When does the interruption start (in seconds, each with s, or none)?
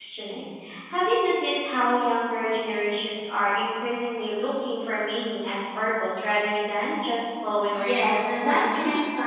7.7 s